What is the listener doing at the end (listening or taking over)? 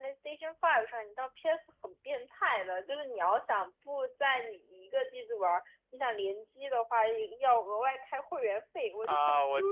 taking over